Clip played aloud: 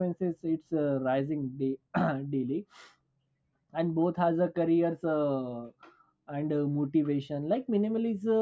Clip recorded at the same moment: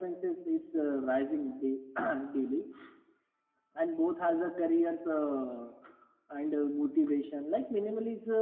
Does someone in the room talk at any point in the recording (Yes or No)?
No